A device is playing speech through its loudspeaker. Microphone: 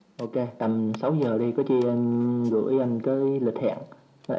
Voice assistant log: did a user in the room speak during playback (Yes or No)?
No